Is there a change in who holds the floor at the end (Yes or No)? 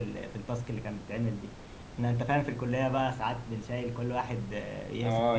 Yes